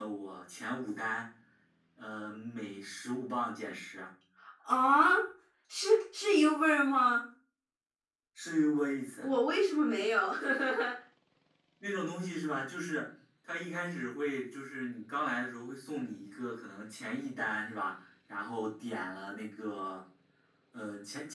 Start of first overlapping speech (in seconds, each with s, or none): none